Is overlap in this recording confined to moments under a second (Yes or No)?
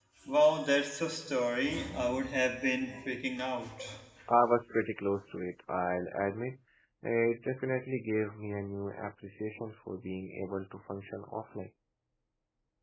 Yes